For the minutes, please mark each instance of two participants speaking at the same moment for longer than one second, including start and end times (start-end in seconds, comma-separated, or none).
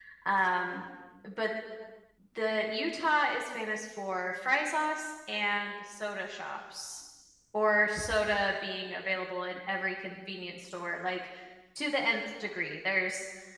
none